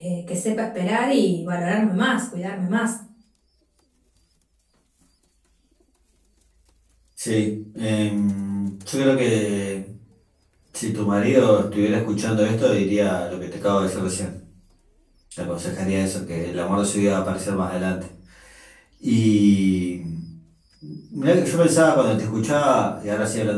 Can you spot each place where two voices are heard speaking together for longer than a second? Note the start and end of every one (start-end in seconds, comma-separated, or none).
none